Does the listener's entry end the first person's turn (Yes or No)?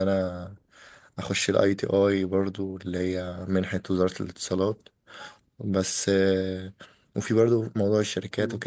No